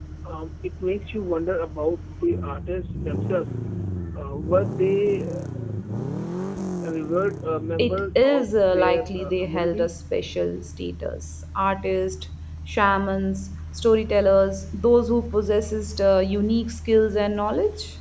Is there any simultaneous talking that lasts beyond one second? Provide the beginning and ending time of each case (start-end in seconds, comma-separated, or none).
7.8-9.9